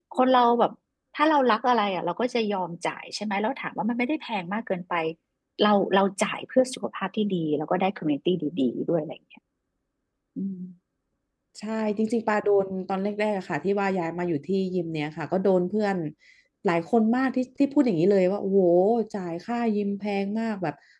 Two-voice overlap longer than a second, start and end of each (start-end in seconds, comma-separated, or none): none